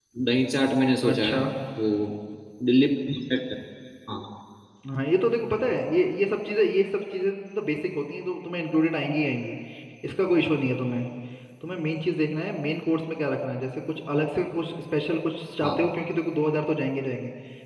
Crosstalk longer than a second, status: none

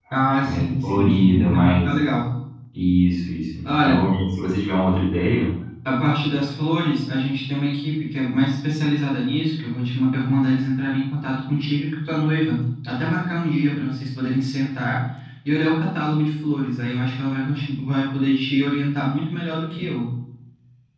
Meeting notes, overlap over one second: present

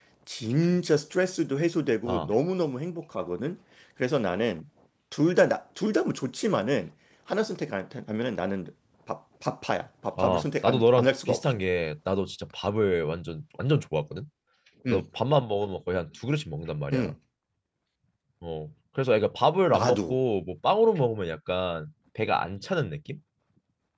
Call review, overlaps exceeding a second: present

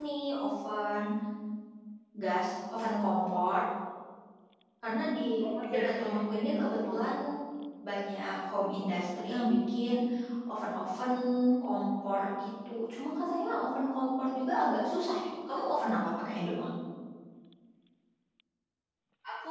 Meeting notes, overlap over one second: present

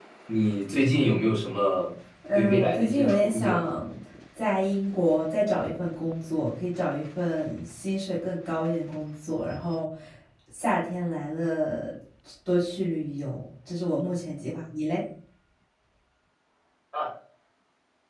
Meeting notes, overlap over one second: present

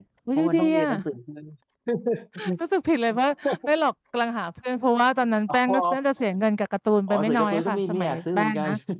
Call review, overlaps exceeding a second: present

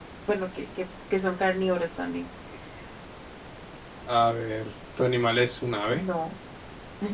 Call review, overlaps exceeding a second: none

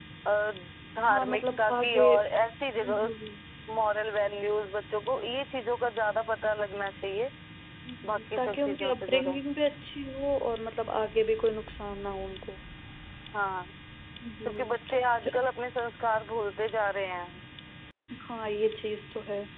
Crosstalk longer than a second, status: present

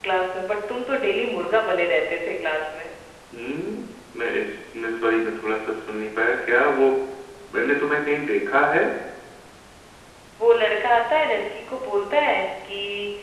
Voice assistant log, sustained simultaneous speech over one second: none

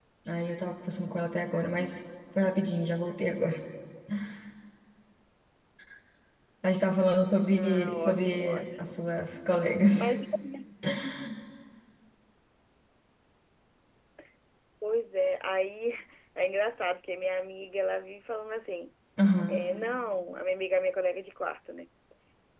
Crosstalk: present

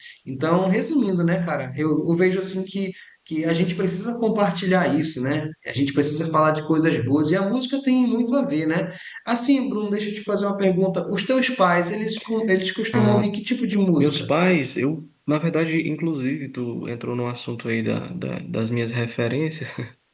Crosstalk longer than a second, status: none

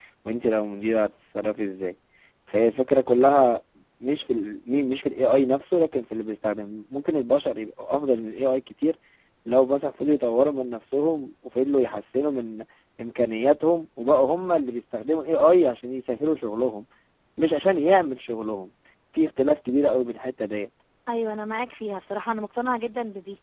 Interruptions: none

